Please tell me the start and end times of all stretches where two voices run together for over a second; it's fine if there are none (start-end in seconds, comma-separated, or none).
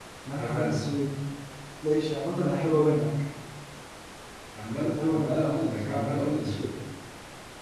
4.8-6.5